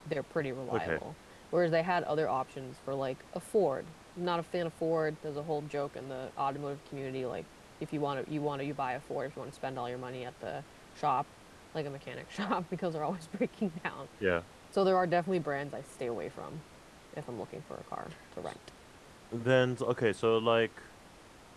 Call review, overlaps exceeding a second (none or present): none